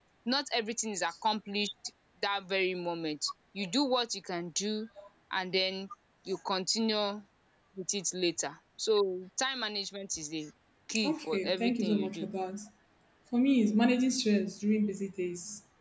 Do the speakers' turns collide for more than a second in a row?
Yes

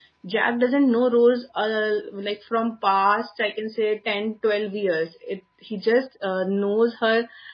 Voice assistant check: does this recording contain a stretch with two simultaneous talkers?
No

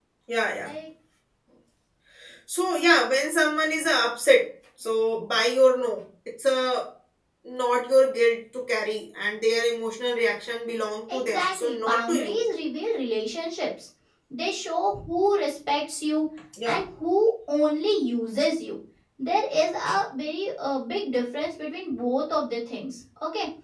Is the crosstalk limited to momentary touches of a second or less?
No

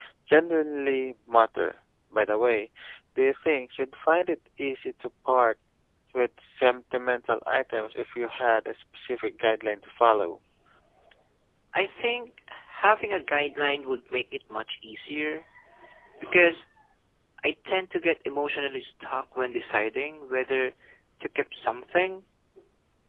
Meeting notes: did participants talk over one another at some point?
No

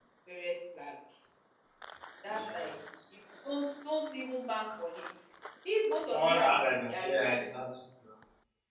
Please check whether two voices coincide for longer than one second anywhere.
Yes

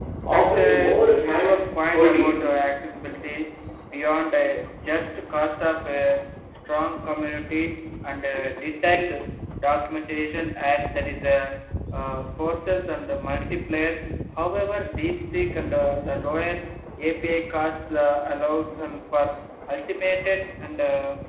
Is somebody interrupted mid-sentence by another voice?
Yes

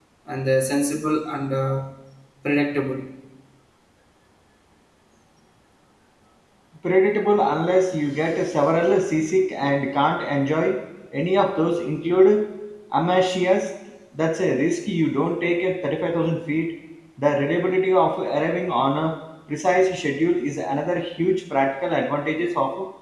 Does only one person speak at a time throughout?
Yes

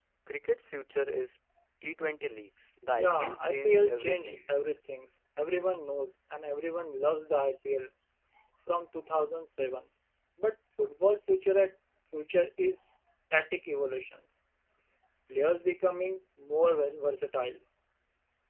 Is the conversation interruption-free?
No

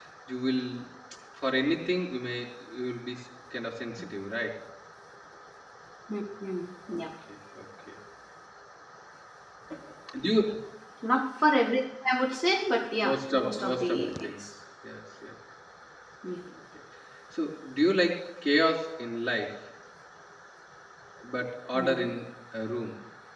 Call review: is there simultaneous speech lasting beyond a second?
Yes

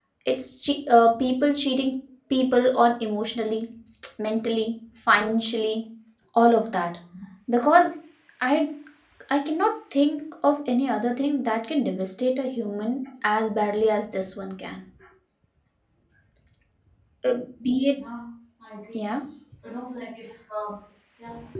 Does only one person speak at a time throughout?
Yes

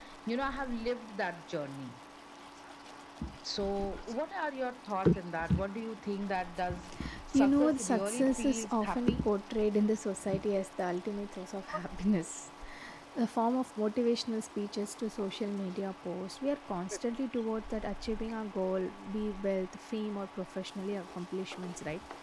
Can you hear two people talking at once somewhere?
Yes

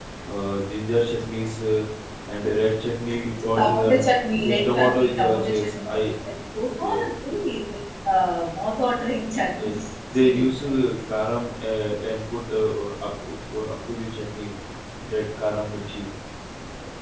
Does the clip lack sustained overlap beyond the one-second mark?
No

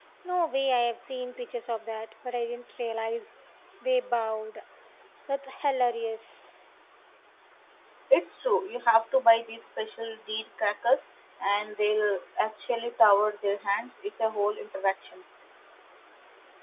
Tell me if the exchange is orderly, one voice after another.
Yes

